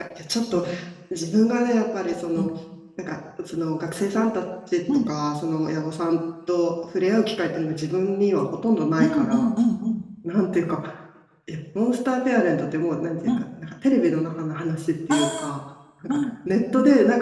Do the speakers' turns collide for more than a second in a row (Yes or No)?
No